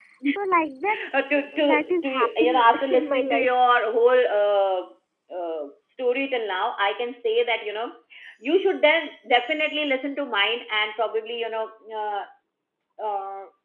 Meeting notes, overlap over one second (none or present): present